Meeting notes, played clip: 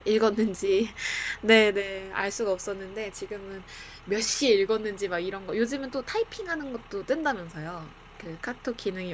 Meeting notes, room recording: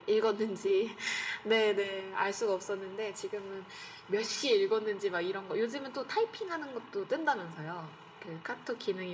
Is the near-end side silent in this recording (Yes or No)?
Yes